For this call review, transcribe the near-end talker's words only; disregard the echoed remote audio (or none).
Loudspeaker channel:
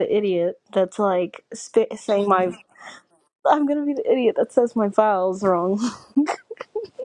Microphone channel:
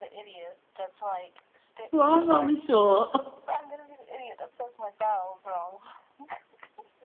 well, I'm only short.